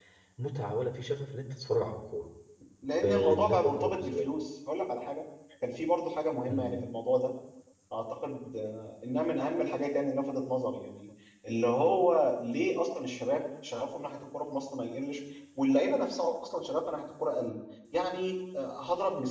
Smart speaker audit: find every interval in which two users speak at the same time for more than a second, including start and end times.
3.0-4.3

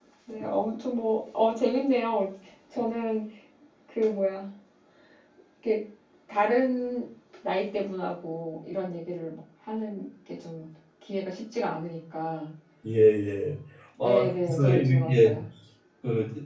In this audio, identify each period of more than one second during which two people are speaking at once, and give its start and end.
14.0-15.4

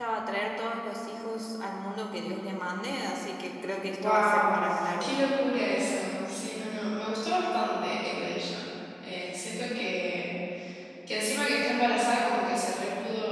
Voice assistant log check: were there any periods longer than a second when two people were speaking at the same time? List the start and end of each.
3.9-5.2

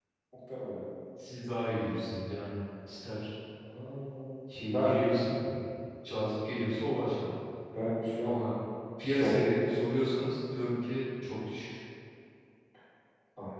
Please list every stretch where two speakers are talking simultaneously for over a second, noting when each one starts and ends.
none

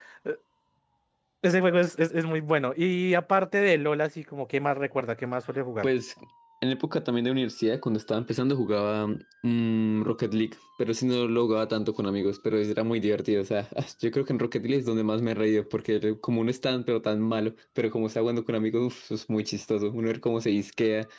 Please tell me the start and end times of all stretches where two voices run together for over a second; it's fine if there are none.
none

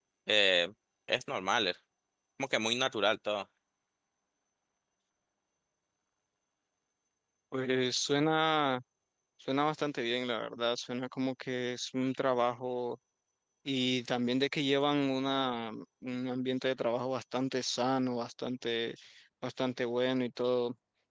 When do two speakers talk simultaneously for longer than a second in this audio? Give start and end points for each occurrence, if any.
none

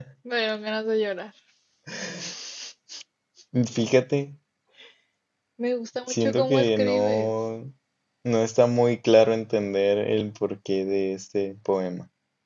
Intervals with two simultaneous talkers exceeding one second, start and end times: 6.1-7.3

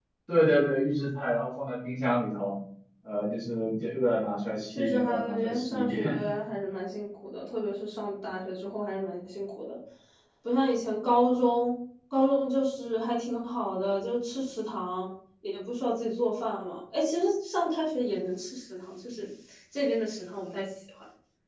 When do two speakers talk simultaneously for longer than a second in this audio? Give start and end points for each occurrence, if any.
4.7-6.2

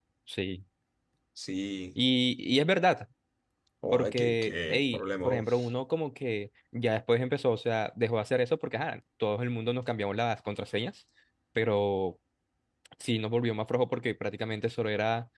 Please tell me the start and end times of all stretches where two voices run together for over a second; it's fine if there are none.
3.9-5.4

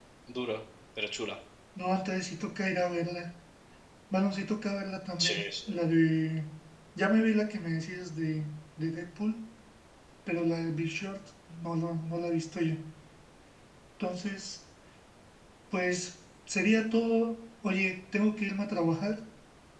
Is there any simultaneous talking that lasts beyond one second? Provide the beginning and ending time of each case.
none

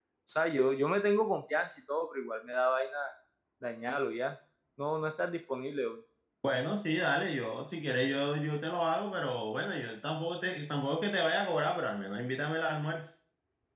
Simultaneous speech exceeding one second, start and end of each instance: none

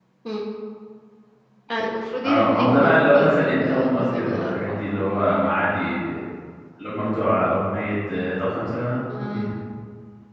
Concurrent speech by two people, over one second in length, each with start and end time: 2.2-4.9

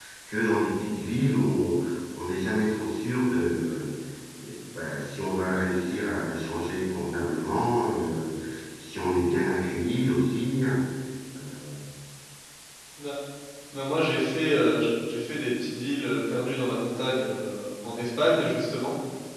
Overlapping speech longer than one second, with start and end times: none

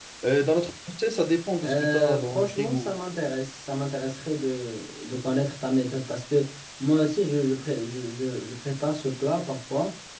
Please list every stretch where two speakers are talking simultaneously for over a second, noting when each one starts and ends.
1.6-3.0

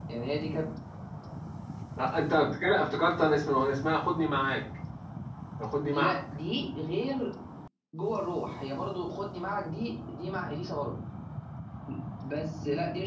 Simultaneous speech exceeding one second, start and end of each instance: none

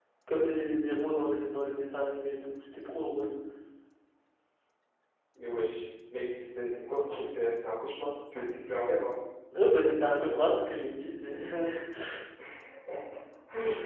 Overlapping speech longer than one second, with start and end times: none

